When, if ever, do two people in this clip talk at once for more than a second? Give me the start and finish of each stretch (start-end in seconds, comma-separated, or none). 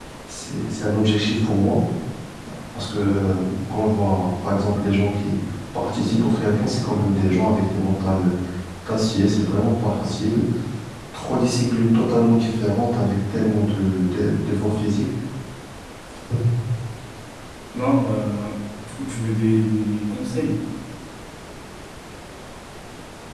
none